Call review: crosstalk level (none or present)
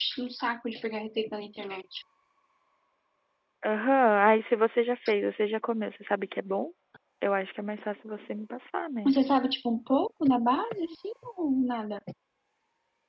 none